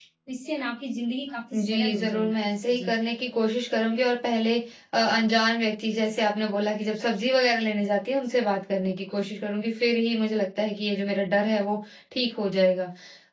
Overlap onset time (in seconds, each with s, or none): 1.5 s